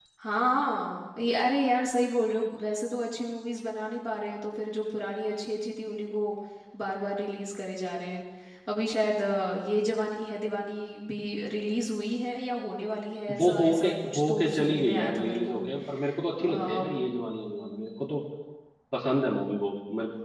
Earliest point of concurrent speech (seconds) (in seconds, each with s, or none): 13.4 s